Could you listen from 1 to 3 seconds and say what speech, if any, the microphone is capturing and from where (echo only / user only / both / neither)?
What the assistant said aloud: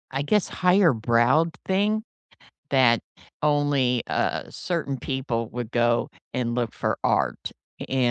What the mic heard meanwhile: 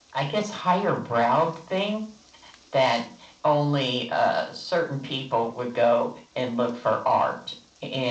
echo only